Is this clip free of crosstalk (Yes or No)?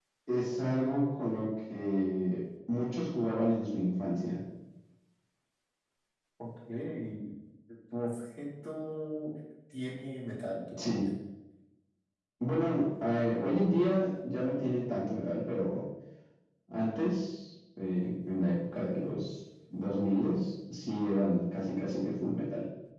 Yes